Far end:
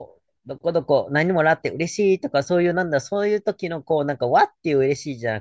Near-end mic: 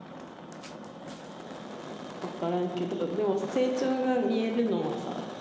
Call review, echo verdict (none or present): none